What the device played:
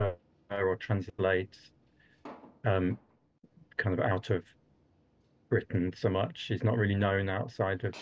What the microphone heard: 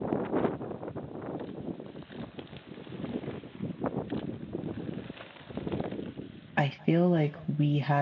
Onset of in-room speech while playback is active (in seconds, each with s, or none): 6.6 s